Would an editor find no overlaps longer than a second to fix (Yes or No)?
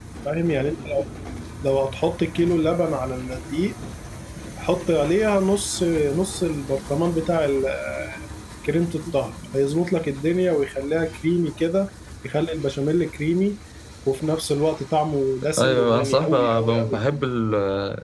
No